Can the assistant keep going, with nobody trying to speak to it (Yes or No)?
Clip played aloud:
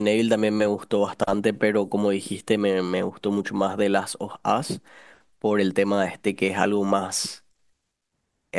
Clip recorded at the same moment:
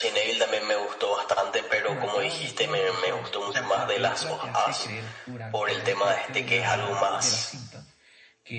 No